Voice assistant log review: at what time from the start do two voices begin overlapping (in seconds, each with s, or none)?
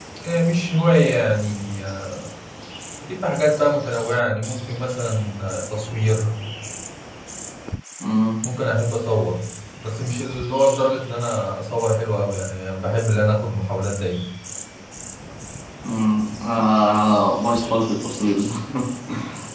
none